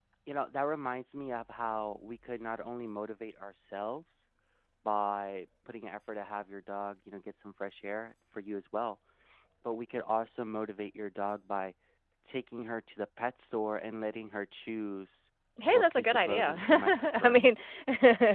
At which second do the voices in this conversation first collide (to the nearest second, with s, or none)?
16 s